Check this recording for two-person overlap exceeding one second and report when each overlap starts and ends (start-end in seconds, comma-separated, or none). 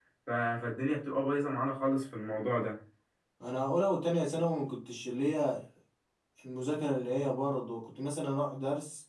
none